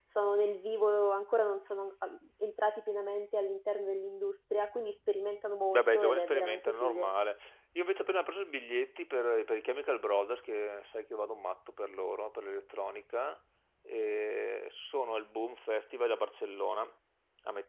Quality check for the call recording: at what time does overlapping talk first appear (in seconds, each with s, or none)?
5.7 s